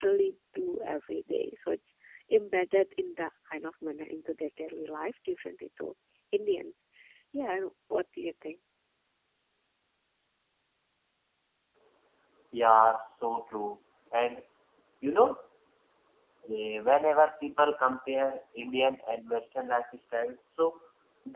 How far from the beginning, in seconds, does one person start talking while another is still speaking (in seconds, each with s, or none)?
none